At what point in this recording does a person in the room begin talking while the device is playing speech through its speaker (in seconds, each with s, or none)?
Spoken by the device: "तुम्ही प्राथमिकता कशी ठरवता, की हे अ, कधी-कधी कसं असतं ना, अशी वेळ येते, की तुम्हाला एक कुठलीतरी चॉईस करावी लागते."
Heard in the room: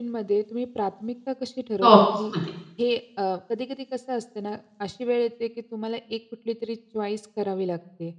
1.8 s